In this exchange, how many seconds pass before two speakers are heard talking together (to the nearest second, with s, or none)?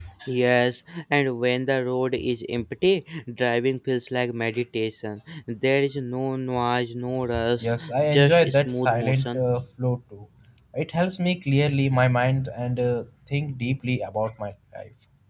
8 s